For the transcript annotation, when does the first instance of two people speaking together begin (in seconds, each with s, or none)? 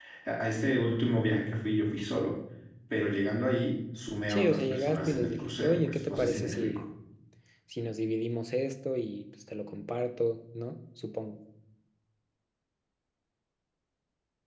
4.3 s